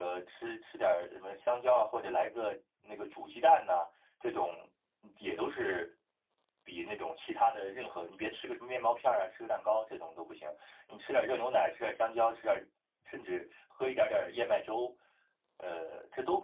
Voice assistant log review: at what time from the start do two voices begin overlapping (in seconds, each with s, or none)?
none